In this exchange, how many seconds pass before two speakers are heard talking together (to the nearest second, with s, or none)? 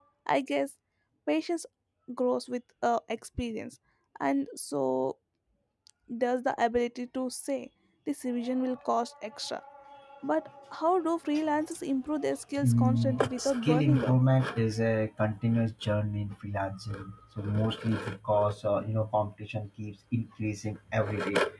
13 s